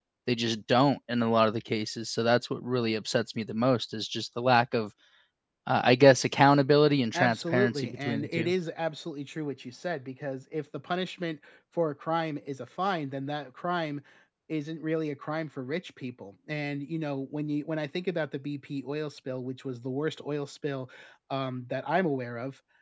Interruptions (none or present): present